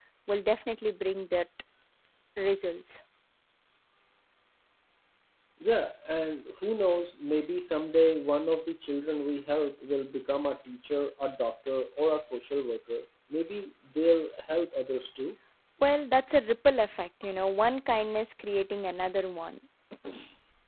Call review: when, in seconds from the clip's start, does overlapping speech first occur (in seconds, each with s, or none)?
none